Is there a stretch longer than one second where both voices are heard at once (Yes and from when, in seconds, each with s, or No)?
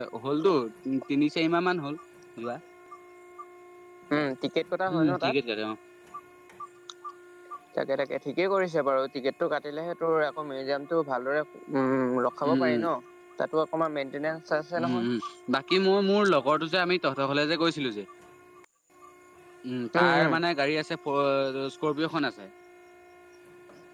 No